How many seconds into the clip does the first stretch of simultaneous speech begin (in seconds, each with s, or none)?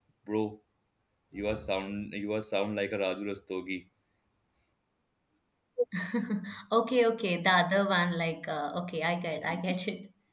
none